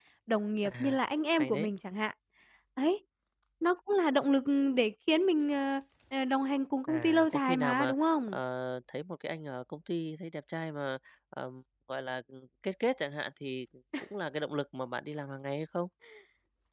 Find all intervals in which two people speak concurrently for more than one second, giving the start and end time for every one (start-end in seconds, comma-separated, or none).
6.9-8.4